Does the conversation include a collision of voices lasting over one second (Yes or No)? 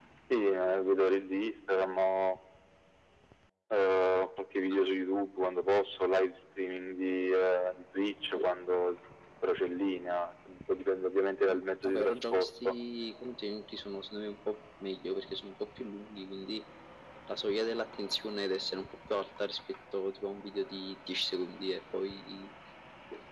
Yes